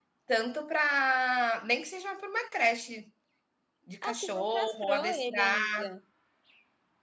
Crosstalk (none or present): present